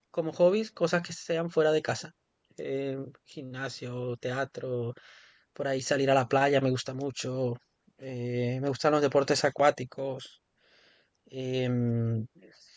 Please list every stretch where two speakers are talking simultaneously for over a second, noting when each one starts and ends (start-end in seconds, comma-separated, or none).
none